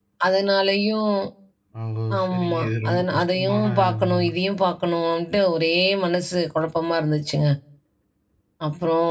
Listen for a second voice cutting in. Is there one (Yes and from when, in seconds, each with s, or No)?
Yes, from 2.2 s